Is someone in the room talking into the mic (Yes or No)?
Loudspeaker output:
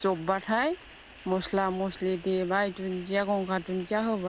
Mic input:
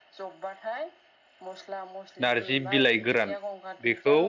Yes